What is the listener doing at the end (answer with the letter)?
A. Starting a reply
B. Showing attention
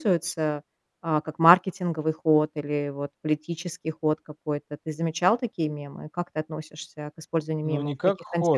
A